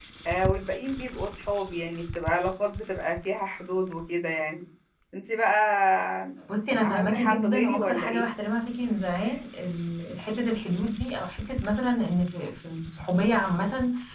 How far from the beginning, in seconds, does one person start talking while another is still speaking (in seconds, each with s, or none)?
6.8 s